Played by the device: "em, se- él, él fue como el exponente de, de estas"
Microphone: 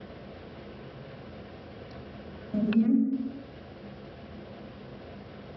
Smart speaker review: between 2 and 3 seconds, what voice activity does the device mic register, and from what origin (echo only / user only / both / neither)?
user only